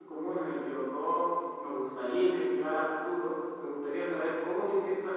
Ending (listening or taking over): listening